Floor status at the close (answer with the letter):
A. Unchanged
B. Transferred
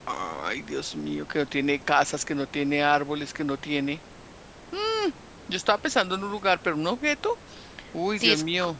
B